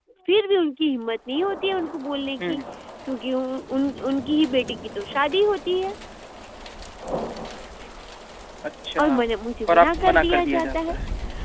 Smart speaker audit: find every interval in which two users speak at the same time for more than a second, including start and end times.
9.7-10.9

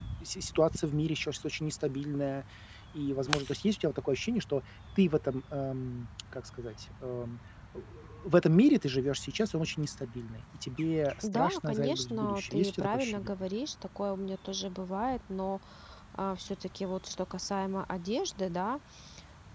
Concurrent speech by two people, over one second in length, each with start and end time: 11.2-13.5

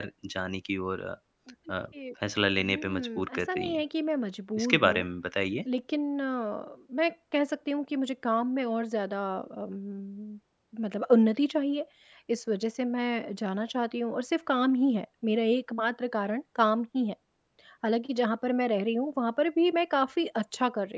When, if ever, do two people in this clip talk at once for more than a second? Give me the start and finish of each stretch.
2.6-3.8

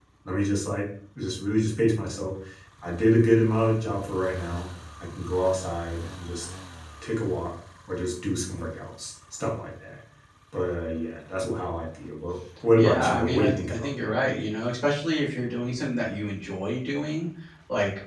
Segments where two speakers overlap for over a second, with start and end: 12.8-14.1

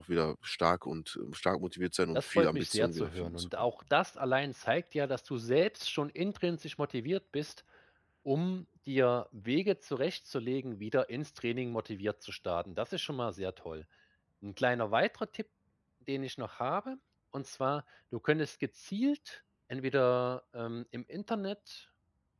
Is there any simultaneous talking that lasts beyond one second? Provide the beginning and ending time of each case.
2.1-3.5

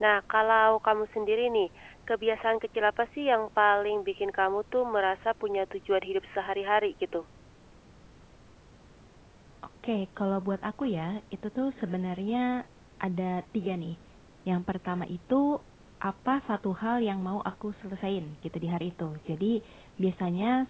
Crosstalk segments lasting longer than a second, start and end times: none

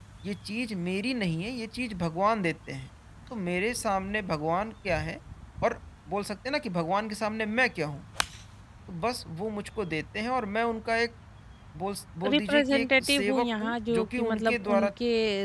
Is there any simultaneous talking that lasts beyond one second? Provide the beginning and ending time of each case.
12.3-14.9

